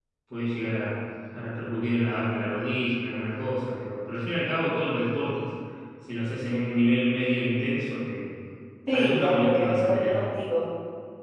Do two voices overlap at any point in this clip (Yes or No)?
Yes